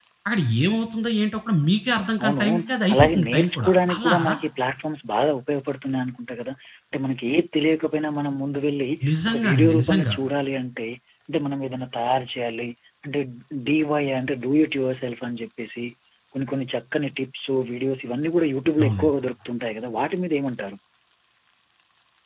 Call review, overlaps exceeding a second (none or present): present